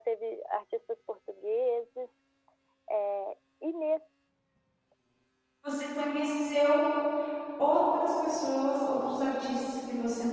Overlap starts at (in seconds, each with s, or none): none